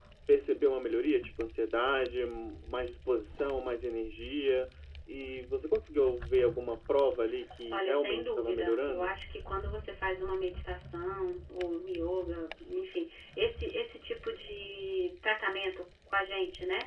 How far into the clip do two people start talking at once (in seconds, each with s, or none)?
7.7 s